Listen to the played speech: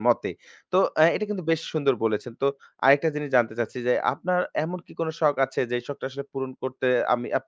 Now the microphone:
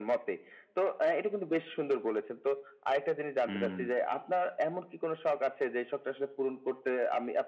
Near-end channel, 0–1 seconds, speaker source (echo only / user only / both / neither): echo only